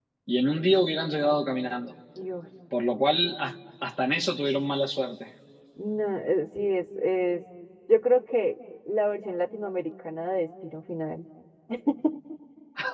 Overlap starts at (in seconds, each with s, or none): none